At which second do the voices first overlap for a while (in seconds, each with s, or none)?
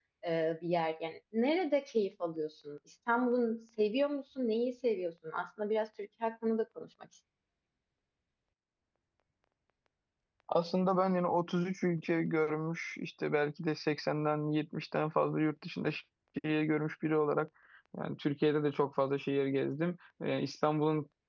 none